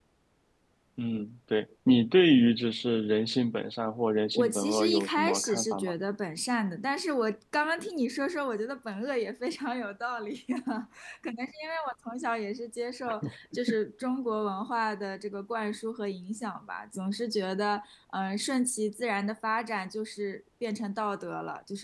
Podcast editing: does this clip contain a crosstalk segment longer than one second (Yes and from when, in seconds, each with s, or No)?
Yes, from 4.3 s